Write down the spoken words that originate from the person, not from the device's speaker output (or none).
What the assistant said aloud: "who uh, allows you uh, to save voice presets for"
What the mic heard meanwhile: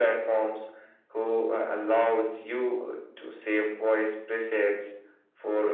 none